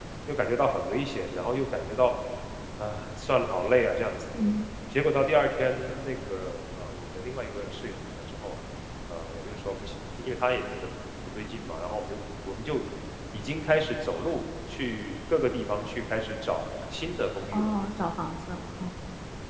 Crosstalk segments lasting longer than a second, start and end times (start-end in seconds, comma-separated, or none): none